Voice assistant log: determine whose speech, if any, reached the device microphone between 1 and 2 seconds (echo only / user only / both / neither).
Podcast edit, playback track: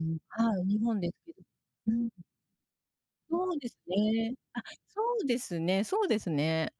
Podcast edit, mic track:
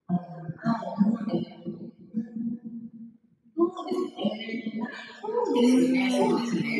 echo only